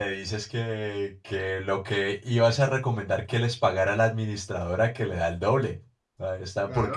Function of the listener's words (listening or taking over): taking over